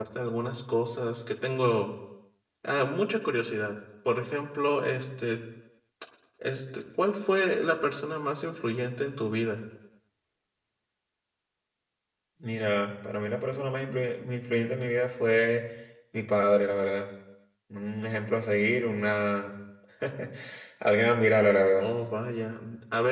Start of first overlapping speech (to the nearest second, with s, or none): none